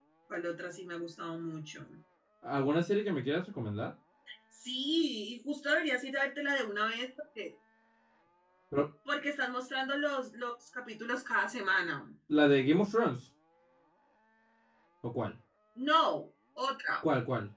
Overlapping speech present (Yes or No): No